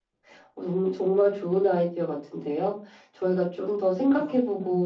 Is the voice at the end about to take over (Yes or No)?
No